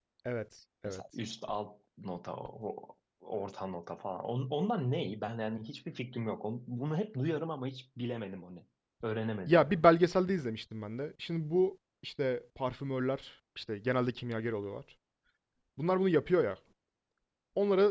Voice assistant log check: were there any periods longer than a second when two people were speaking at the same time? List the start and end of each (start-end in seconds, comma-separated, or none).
none